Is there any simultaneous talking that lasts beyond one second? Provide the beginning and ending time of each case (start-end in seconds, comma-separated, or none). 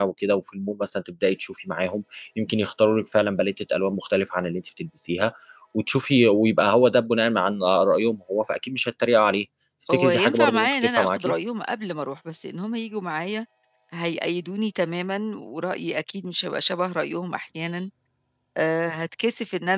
9.9-11.3